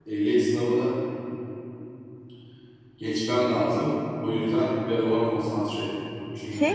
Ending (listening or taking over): taking over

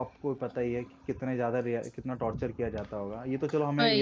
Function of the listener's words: listening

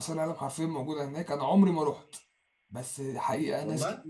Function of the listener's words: listening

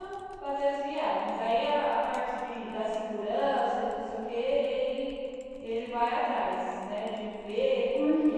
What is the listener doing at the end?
listening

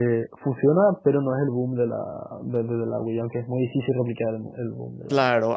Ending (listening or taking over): taking over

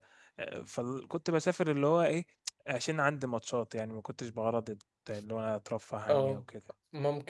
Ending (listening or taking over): taking over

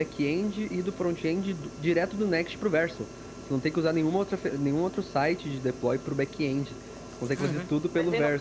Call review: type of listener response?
taking over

